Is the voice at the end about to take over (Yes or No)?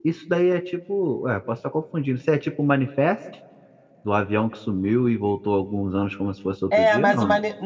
Yes